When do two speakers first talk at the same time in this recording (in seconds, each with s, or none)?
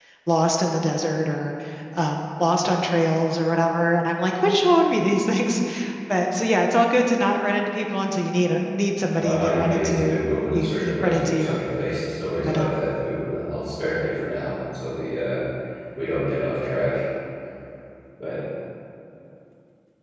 9.2 s